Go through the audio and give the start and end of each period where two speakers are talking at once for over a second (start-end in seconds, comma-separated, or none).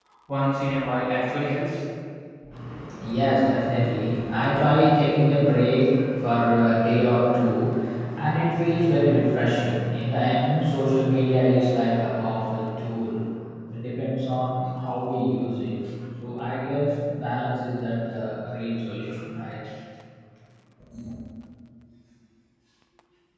none